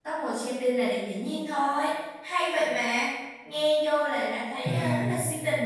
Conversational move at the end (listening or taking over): listening